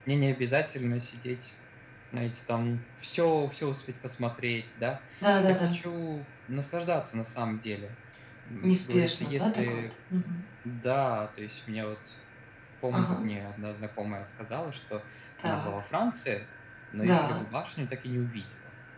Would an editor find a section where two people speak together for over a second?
Yes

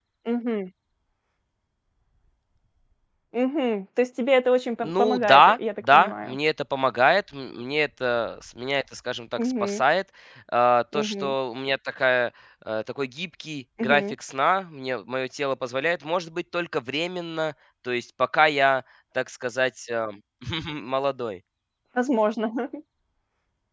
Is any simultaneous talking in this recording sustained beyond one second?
Yes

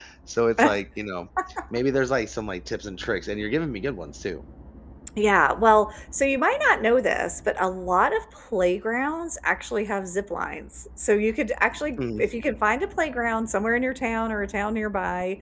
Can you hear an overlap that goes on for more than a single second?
No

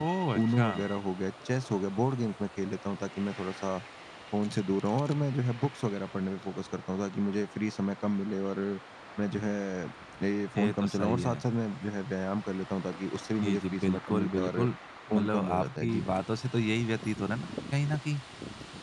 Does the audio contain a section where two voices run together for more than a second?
Yes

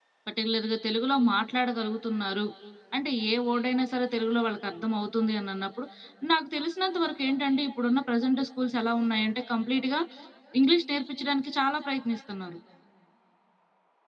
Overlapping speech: No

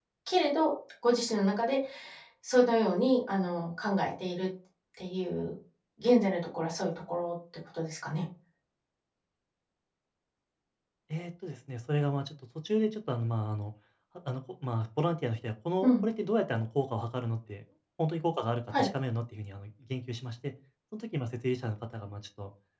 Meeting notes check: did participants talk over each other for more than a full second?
No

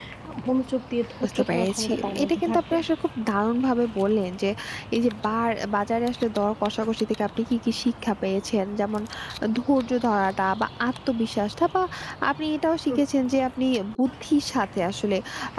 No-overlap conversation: No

